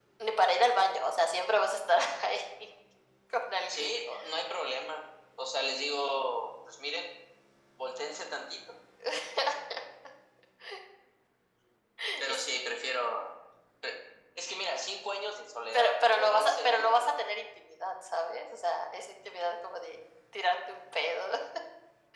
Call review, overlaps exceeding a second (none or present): present